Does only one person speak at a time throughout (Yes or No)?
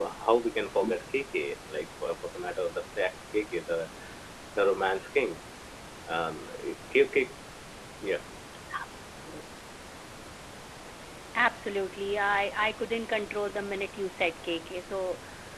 Yes